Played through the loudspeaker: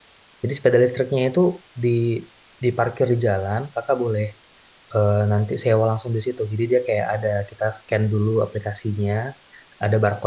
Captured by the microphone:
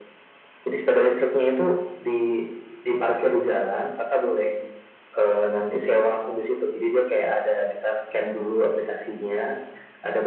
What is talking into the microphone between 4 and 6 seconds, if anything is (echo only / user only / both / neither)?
echo only